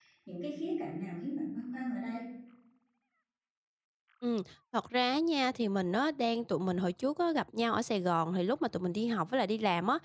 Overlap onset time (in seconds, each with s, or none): none